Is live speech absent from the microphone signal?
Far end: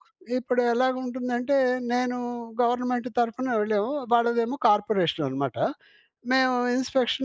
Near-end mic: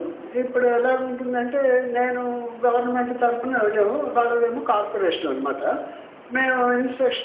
Yes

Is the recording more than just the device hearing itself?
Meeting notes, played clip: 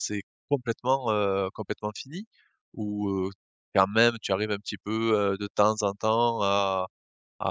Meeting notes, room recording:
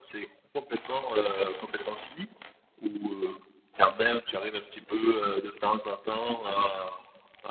No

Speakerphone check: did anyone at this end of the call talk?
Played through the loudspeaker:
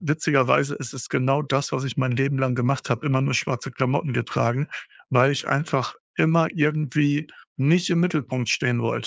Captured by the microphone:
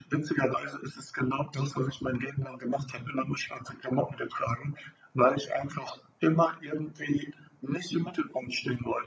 No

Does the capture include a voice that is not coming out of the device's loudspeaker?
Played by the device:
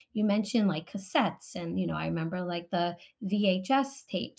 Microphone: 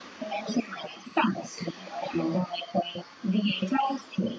No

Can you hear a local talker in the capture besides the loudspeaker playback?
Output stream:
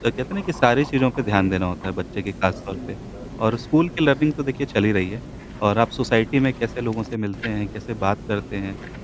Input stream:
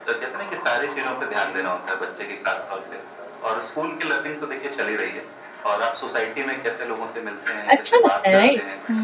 Yes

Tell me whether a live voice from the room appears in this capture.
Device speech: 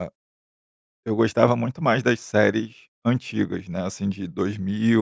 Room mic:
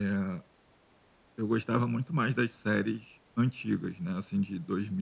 No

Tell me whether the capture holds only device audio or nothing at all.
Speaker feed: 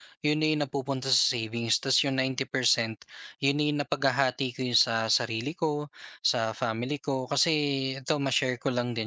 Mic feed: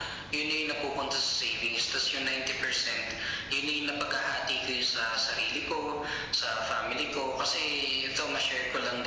Yes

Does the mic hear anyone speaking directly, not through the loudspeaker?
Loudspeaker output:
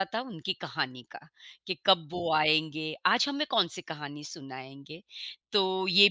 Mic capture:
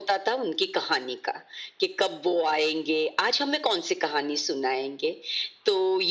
No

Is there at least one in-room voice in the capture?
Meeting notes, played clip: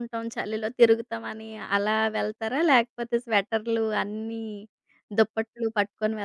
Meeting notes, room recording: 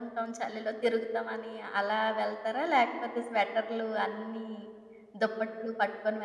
No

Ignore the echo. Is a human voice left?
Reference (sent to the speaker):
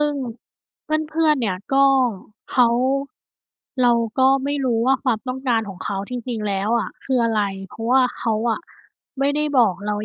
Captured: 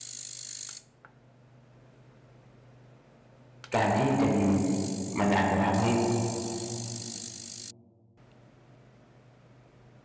Yes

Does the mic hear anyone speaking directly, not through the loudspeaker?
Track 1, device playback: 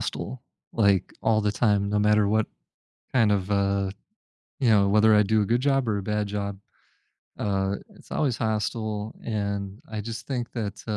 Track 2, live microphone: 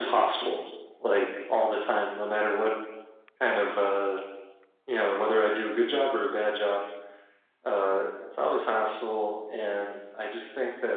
No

